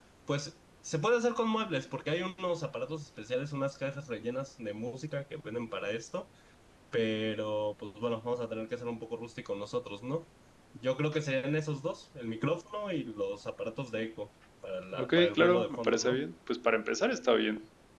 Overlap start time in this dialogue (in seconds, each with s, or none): 14.9 s